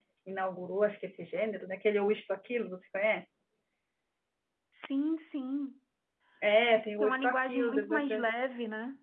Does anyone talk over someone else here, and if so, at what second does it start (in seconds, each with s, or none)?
7.0 s